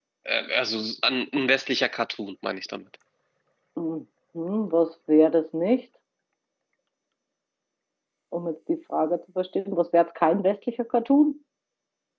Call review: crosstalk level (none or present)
none